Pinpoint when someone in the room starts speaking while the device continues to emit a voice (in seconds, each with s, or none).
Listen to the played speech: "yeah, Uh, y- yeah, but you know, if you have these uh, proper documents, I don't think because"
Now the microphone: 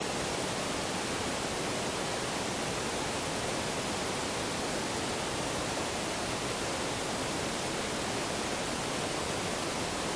none